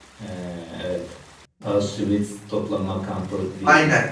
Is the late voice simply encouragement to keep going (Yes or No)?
No